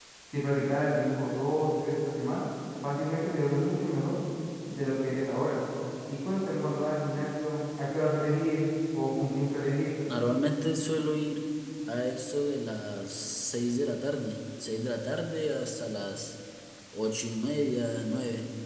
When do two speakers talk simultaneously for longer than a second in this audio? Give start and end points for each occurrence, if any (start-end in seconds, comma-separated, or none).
none